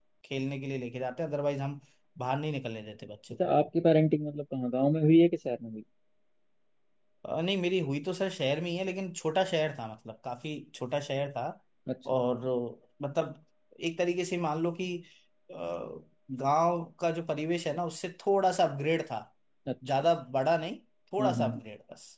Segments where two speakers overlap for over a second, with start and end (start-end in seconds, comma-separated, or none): none